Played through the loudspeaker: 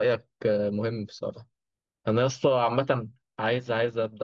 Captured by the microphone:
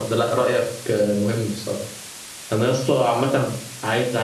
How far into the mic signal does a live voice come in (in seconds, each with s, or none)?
none